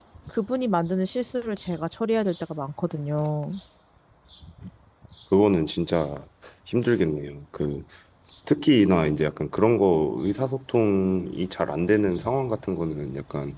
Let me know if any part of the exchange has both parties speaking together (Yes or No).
No